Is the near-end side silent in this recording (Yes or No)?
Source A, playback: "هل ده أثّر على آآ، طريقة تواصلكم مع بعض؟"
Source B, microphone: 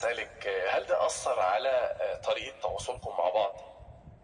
Yes